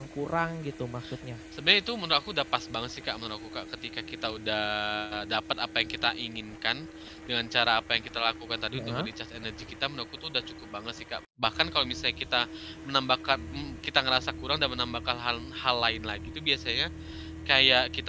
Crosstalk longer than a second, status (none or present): none